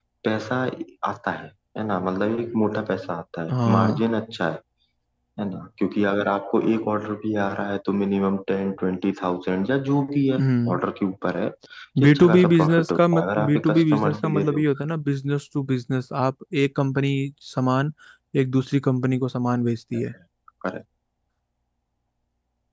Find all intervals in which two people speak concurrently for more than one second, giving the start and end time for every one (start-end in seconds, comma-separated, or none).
12.0-14.6